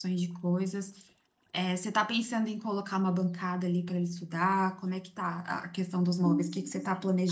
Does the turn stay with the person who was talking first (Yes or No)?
No